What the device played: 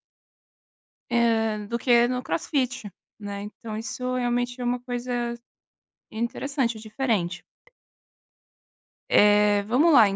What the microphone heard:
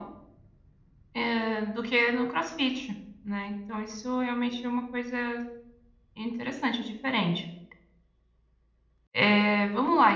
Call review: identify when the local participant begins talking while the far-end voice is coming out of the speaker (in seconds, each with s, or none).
none